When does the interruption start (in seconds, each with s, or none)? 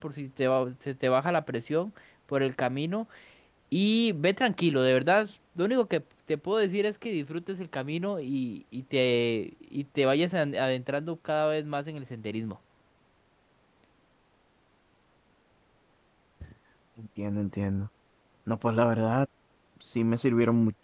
none